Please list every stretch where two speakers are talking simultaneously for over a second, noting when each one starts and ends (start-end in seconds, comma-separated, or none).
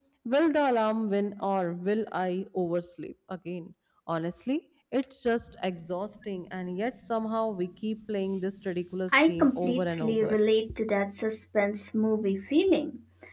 9.1-10.3